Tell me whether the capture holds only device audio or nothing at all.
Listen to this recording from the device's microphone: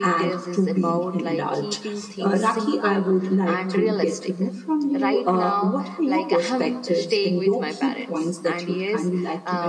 Yes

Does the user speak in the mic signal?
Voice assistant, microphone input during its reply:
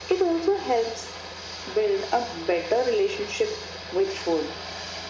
No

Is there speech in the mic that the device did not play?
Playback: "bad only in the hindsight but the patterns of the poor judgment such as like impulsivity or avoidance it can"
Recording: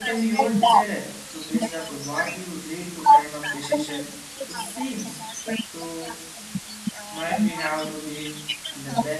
Yes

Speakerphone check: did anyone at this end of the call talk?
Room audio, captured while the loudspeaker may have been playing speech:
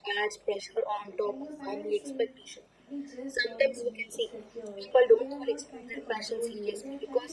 Yes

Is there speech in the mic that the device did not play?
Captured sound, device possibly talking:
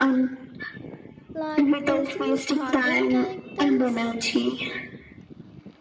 Yes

